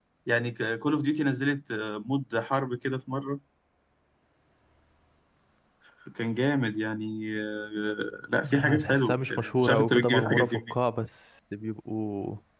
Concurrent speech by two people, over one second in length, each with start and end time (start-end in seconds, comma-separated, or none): 8.5-10.7